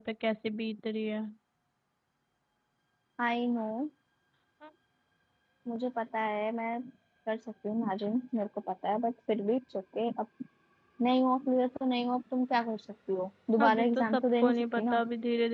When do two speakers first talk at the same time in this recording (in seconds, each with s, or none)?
13.6 s